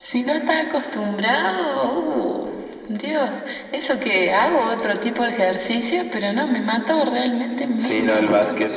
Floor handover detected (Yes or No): Yes